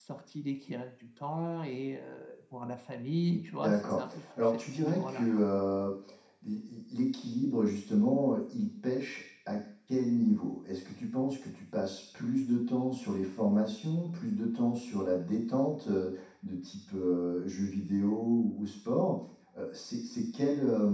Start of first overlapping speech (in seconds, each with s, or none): 3.6 s